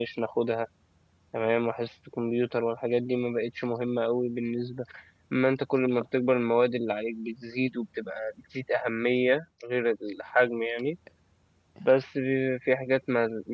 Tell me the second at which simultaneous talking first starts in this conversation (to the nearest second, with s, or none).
none